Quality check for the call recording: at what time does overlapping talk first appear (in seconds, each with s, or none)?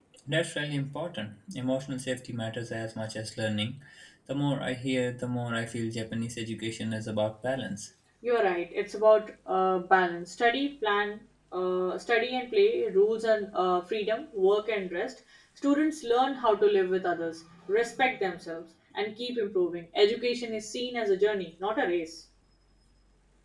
none